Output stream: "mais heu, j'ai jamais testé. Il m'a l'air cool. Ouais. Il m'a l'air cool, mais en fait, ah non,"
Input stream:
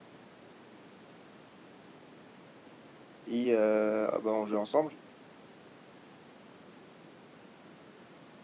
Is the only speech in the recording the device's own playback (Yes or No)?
No